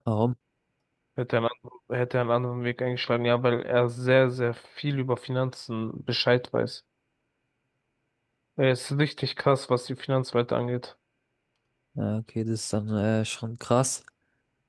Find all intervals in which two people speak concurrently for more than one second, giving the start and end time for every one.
none

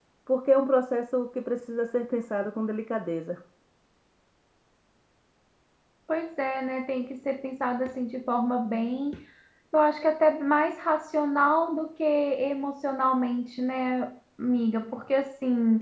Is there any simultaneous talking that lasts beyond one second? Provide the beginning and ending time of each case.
none

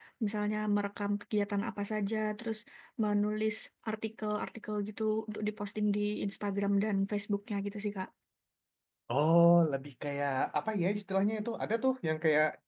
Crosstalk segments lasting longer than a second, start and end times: none

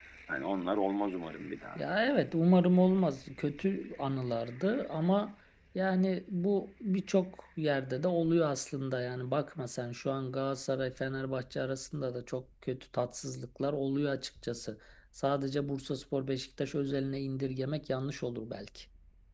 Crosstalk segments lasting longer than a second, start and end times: none

